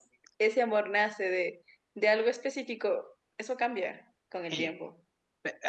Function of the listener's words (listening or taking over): taking over